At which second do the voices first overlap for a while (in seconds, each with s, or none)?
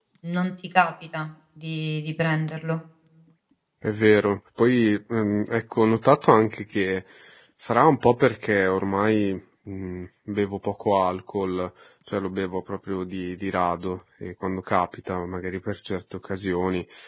none